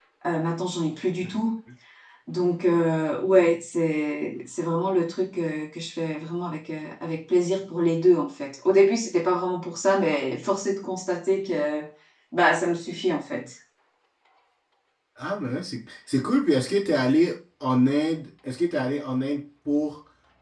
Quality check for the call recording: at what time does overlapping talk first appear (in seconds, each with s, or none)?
none